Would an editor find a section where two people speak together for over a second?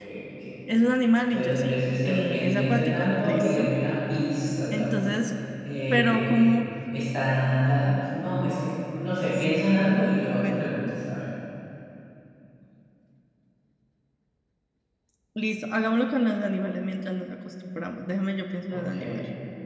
Yes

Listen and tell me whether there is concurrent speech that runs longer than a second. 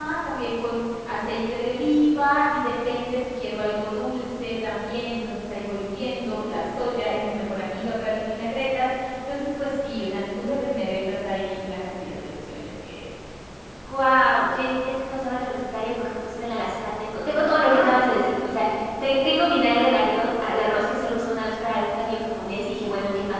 No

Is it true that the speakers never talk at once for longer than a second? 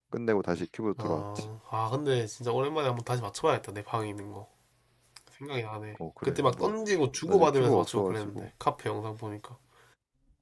No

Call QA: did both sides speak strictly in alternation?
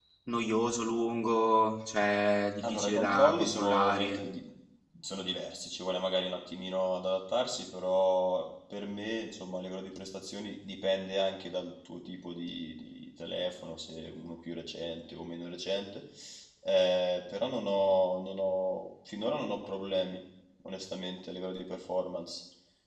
No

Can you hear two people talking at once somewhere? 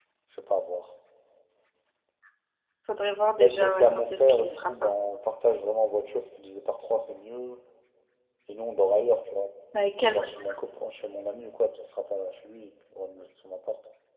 Yes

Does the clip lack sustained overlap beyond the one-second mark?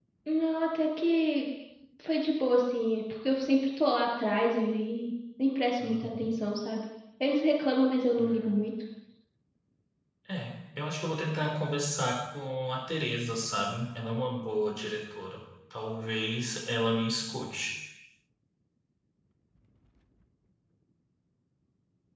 Yes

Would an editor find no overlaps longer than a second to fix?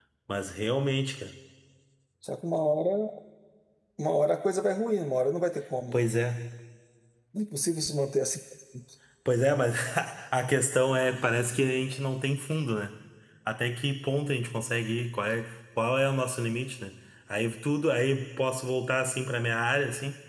Yes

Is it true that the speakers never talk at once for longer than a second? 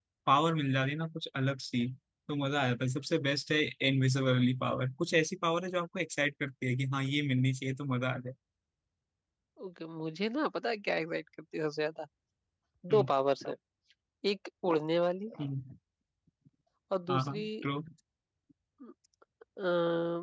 Yes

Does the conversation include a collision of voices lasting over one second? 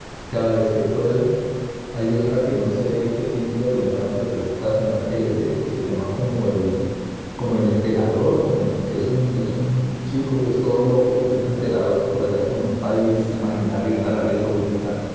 No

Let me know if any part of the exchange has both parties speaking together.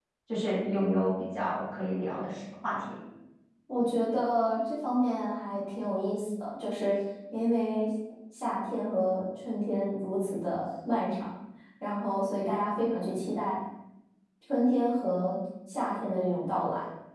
No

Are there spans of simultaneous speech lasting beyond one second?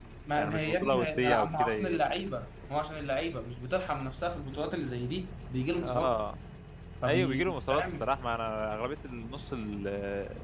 Yes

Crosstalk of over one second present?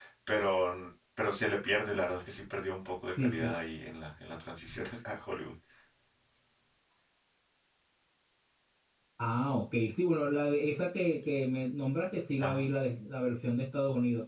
No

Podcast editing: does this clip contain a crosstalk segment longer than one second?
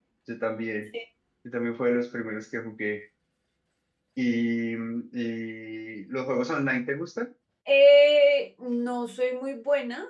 No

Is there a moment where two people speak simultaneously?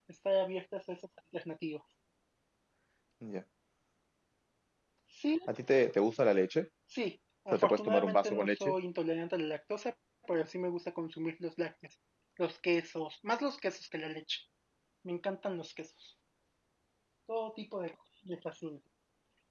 Yes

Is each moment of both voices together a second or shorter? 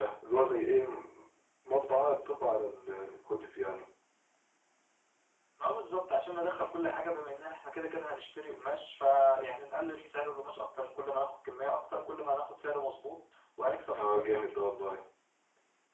Yes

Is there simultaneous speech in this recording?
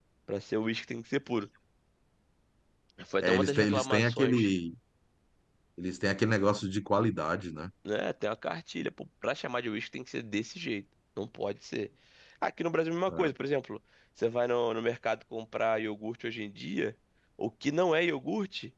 Yes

